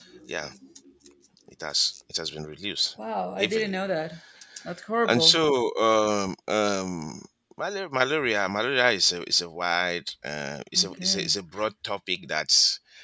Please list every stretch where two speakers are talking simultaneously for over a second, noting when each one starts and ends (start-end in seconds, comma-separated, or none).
none